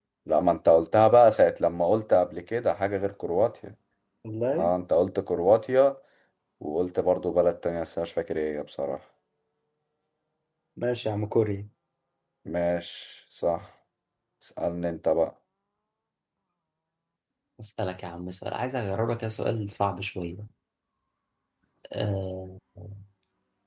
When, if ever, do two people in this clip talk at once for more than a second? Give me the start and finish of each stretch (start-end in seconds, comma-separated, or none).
none